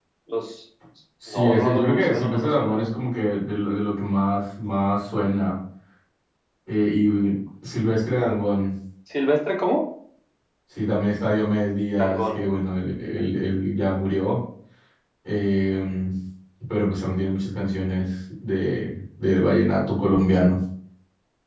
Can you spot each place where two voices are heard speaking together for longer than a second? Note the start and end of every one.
1.3-2.8

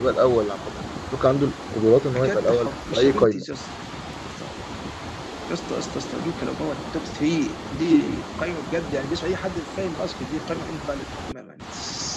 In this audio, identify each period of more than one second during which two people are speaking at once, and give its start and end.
2.2-3.4

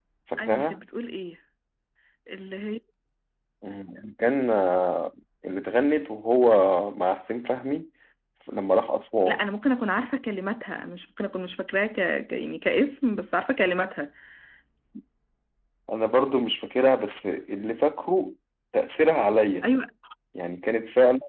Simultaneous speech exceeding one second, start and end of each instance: none

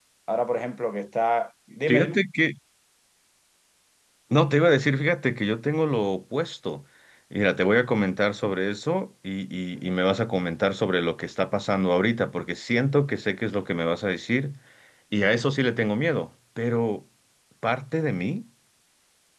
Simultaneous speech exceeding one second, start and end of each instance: none

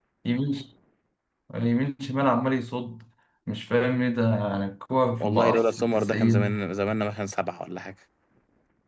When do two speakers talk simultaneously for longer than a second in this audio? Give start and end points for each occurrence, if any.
5.2-6.6

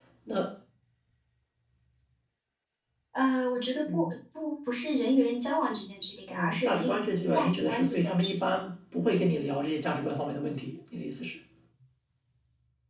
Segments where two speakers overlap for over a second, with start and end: 6.3-8.6

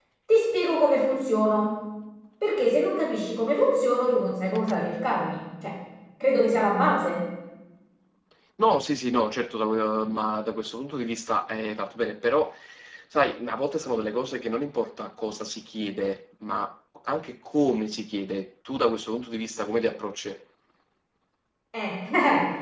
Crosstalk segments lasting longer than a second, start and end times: none

